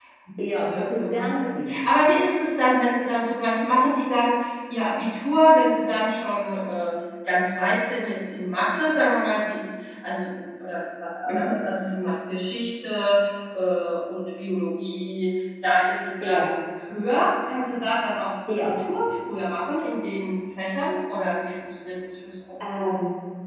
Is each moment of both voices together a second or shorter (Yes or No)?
No